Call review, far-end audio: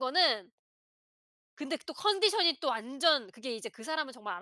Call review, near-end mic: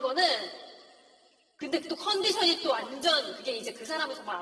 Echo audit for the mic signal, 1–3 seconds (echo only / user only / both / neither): echo only